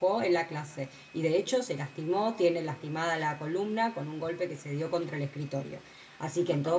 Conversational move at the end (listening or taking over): listening